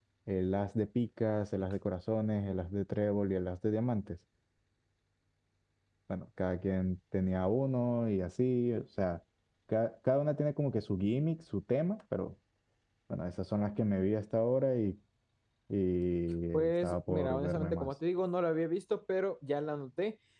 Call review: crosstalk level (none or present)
present